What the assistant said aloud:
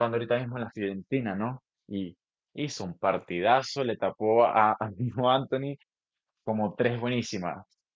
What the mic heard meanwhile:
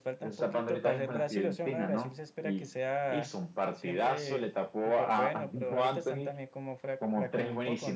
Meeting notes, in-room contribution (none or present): present